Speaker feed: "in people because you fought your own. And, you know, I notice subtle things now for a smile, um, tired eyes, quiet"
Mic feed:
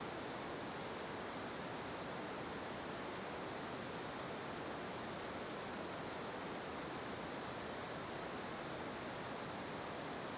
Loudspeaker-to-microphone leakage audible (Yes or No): No